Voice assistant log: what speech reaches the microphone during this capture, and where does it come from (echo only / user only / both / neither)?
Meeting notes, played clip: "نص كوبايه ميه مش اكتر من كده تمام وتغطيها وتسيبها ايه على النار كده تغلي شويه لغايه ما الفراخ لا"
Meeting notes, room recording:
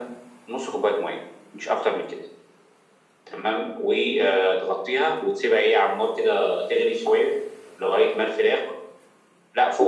echo only